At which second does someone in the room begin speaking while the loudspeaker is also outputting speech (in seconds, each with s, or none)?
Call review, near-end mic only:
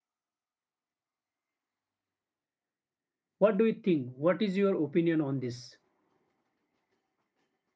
3.4 s